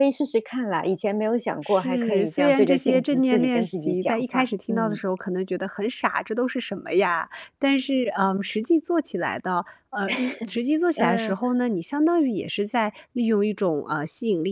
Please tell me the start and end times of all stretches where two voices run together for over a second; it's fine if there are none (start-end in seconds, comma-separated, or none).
1.6-5.0